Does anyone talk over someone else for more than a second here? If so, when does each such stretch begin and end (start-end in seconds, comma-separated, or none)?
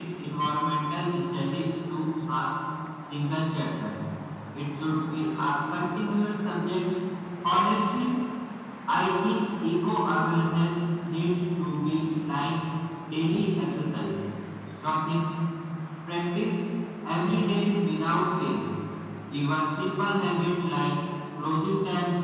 none